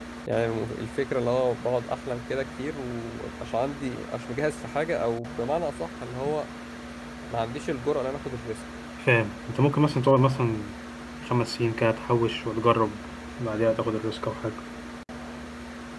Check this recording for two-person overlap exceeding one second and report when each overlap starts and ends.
none

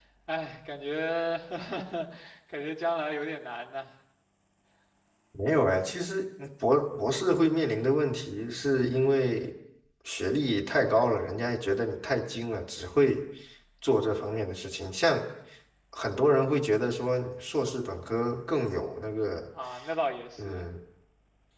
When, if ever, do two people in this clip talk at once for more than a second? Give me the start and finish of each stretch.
none

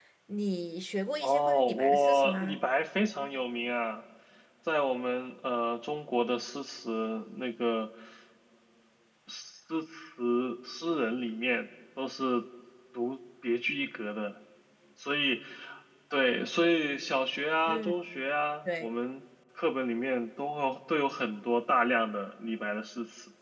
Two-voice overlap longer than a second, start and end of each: 1.2-2.6

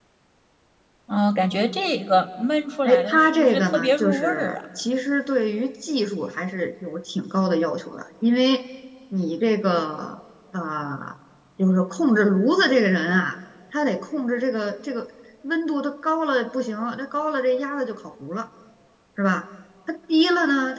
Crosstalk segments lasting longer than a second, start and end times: 2.8-4.6

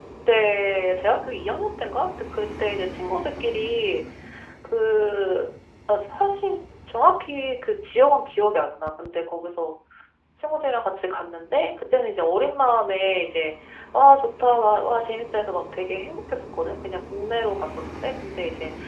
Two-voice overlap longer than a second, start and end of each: none

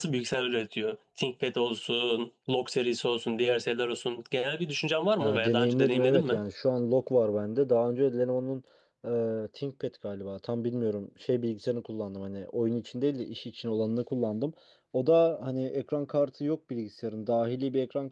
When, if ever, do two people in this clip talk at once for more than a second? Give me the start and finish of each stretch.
5.2-6.4

